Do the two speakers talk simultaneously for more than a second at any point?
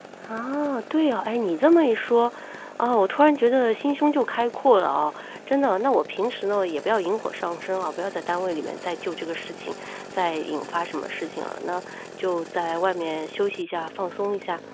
No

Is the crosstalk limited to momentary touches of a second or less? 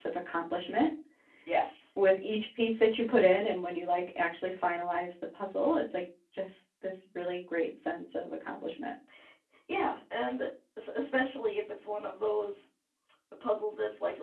Yes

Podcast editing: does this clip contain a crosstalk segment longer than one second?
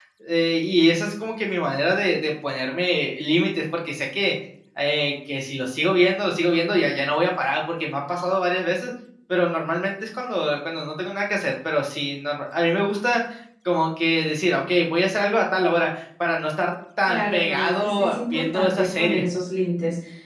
Yes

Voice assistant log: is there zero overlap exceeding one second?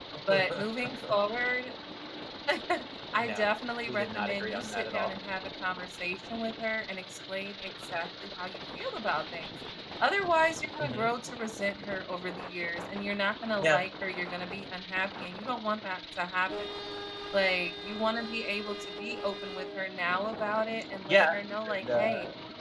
No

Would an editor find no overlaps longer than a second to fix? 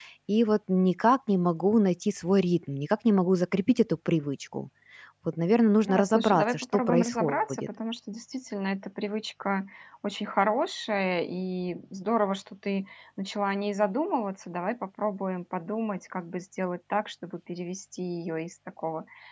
No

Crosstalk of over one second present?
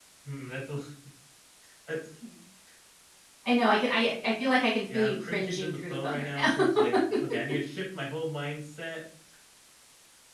Yes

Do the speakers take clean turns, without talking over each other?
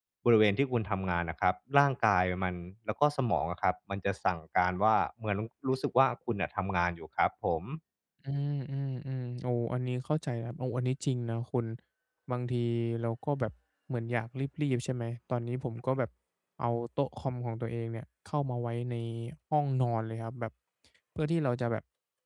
Yes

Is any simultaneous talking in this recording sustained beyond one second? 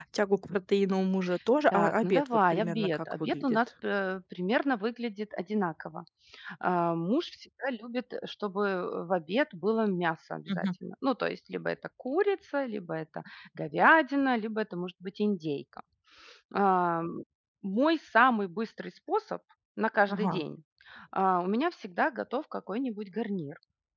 Yes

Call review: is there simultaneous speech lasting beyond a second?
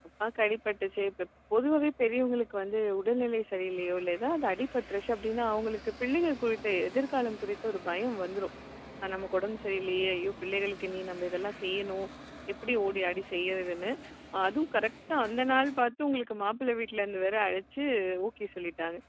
No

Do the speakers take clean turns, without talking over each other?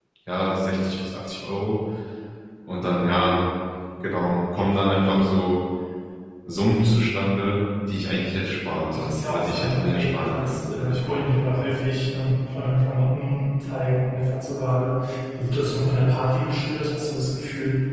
No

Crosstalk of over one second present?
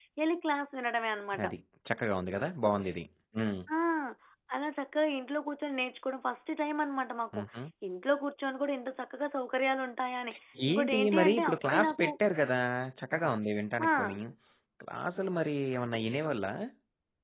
Yes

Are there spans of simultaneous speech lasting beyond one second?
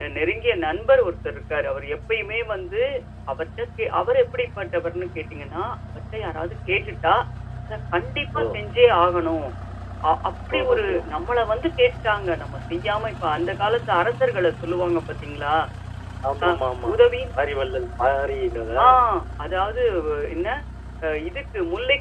No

